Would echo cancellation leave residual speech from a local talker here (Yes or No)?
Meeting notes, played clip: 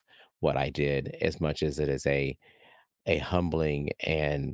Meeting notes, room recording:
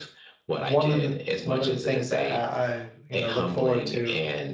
Yes